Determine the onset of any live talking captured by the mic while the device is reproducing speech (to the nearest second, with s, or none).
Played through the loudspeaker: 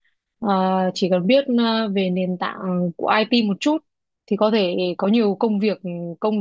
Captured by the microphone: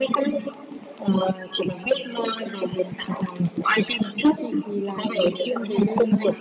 4 s